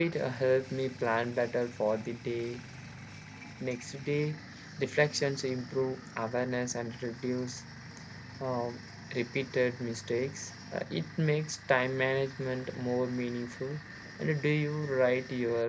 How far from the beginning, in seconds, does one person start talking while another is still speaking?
none

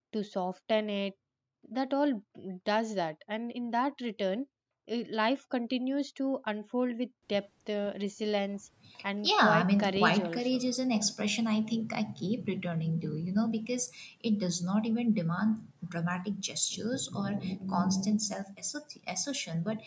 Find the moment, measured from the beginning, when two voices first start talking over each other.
9.2 s

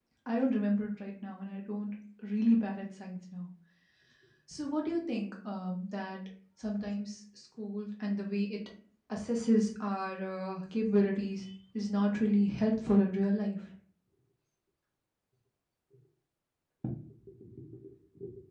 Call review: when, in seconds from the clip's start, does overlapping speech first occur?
none

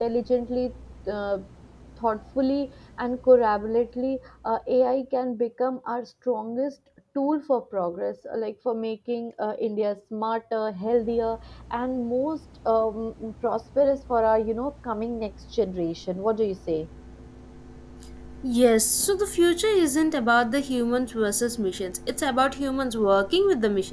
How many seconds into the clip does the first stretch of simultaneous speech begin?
none

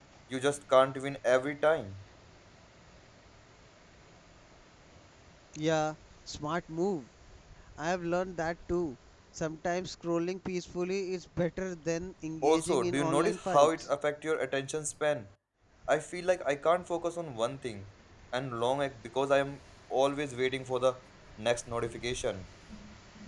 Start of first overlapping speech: 12.4 s

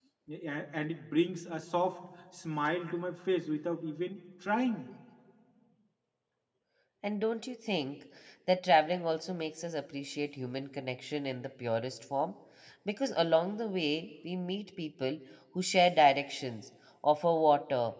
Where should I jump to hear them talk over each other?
none

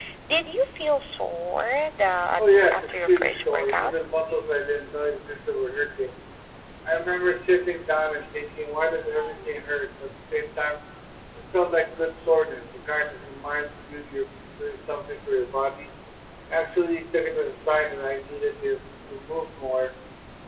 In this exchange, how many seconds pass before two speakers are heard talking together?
2.4 s

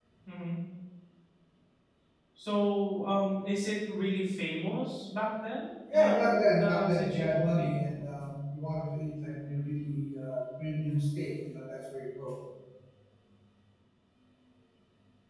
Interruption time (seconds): 5.9 s

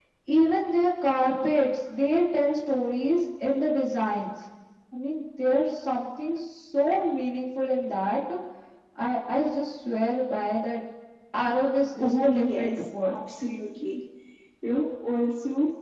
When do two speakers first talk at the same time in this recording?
12.0 s

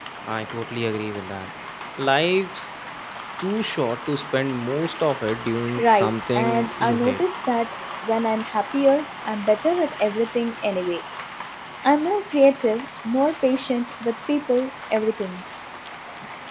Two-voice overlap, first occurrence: 5.8 s

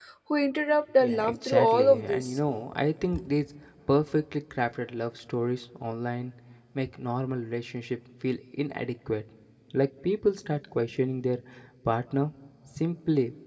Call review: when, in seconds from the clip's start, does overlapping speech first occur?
1.0 s

